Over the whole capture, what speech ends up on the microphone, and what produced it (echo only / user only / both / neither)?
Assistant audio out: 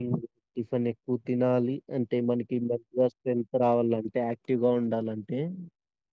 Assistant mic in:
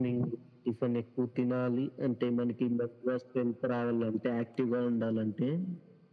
echo only